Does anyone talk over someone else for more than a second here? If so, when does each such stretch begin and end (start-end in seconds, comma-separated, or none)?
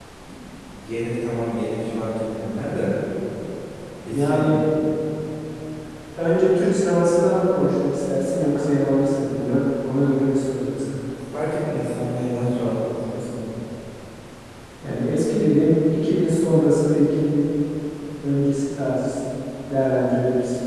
none